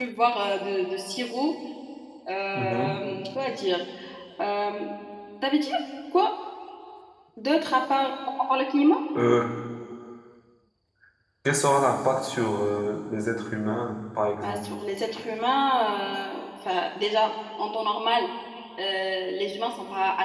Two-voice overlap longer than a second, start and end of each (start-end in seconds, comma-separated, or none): none